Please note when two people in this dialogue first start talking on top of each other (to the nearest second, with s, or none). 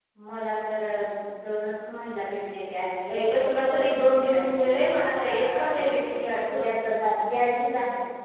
3 s